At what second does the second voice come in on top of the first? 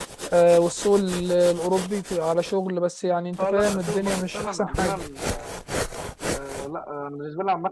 3 s

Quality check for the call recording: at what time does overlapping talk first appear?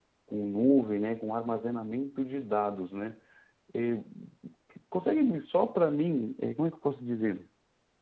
none

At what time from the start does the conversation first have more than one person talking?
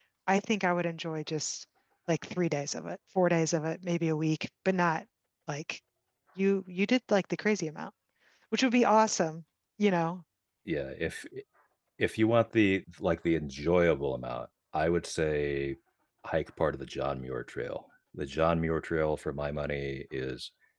none

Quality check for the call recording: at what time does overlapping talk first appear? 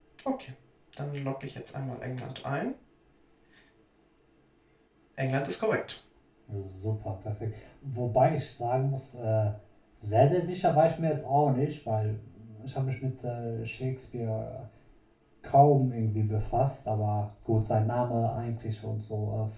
none

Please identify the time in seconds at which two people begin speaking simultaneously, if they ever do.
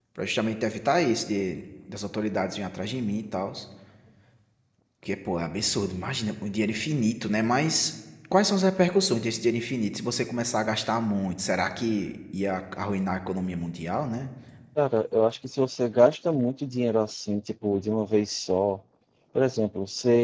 none

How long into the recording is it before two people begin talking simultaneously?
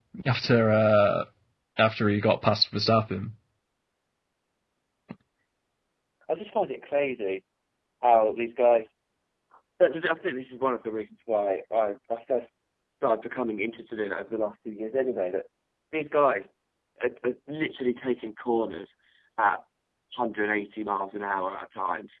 none

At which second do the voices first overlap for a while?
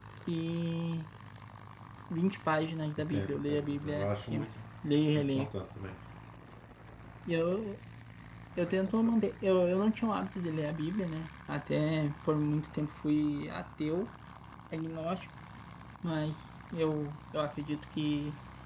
3 s

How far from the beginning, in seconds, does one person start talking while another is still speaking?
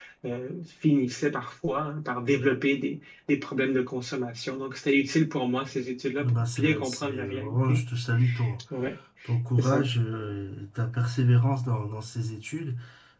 6 s

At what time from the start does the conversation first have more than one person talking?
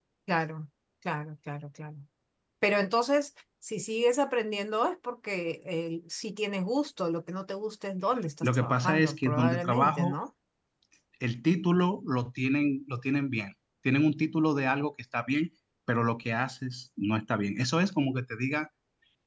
8 s

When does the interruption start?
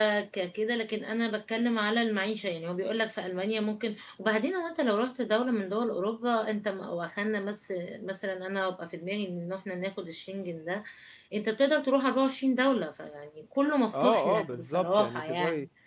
14 s

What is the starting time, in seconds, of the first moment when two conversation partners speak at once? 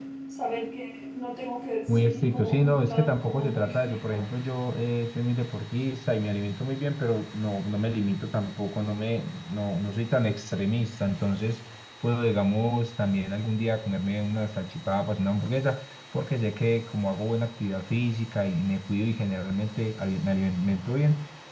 2 s

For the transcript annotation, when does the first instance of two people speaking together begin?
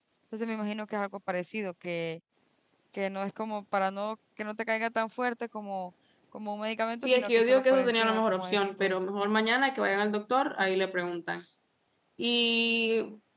7 s

